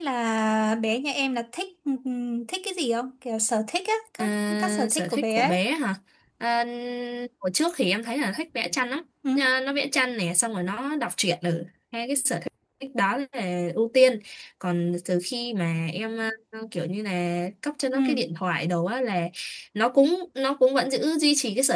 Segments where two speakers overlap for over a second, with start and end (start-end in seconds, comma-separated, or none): 4.2-5.6